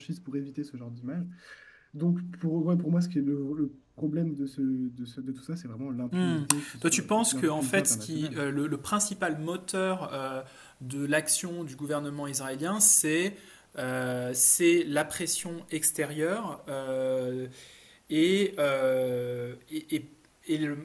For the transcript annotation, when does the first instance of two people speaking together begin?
6.1 s

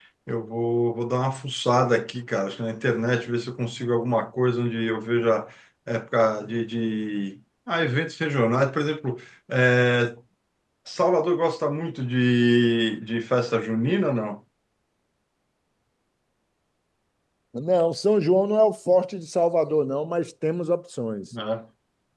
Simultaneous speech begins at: none

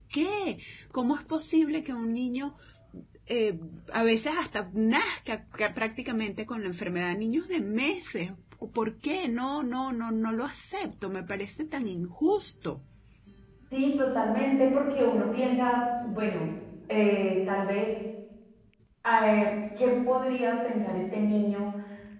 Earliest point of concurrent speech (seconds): none

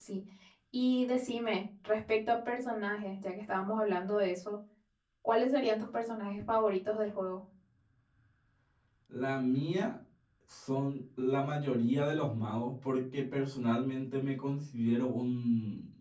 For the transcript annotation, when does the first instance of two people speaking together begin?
none

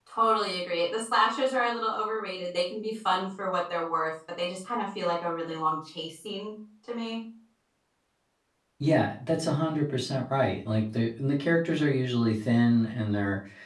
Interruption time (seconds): none

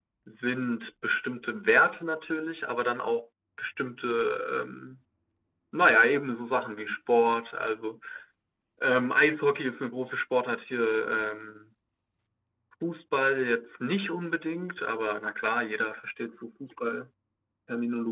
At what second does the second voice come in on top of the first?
none

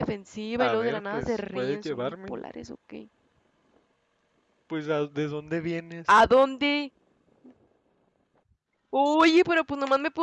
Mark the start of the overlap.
0.6 s

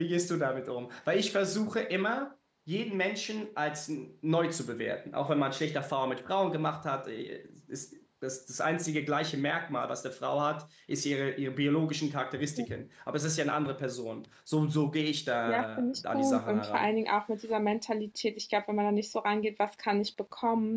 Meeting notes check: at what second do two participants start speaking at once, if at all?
15.5 s

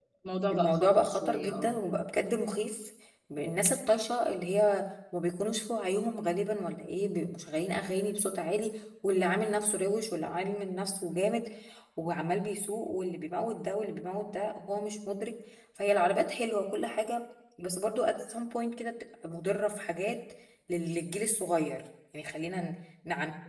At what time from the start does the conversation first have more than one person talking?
0.5 s

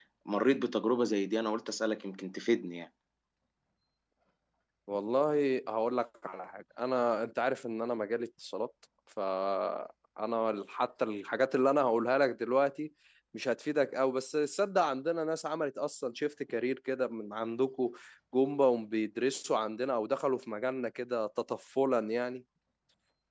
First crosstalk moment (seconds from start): none

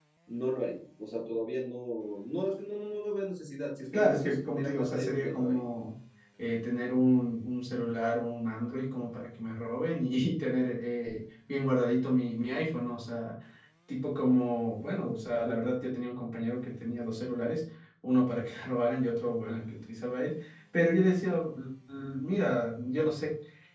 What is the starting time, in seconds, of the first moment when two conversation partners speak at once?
3.9 s

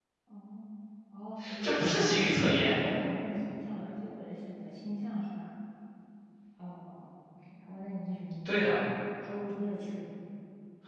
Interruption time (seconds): 1.6 s

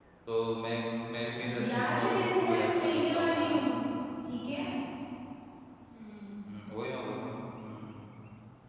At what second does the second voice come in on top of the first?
1.4 s

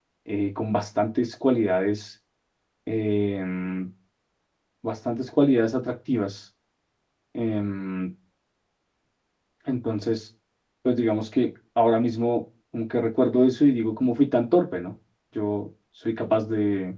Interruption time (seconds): none

